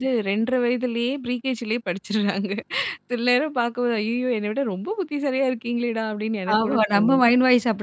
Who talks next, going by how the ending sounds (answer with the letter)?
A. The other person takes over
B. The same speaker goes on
A